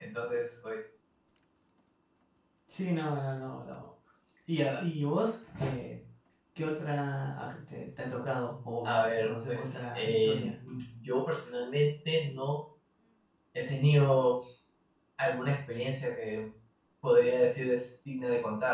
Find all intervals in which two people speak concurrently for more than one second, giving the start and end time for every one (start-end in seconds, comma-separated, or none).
8.8-10.4